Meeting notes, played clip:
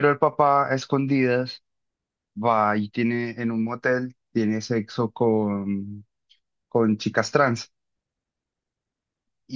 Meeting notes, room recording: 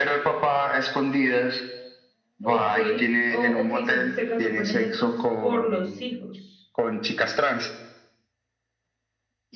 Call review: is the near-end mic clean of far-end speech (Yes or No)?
No